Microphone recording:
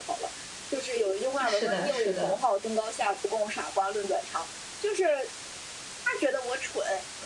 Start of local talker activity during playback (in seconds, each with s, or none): 1.4 s